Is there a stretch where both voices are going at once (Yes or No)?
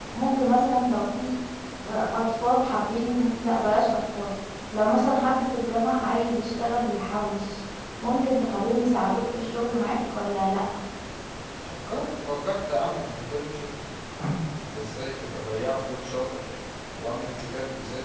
No